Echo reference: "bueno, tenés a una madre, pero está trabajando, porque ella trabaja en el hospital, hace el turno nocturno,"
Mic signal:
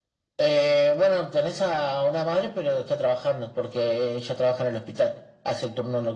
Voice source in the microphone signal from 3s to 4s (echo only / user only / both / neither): echo only